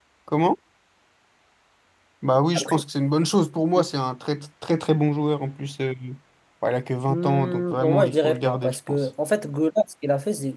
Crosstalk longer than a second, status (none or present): present